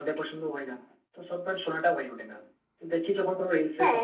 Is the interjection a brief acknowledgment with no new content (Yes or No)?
Yes